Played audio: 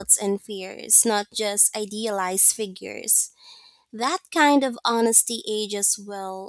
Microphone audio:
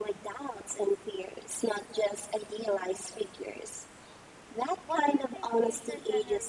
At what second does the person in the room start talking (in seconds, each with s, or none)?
4.8 s